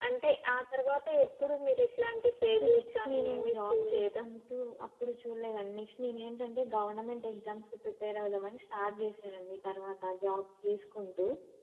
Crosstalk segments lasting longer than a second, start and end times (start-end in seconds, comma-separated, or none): 2.5-4.2